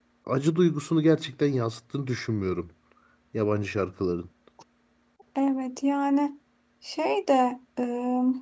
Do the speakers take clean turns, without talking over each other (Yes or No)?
Yes